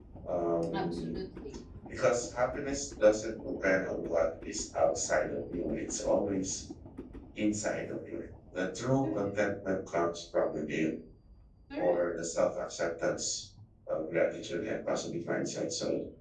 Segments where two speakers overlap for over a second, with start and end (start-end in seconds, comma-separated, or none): none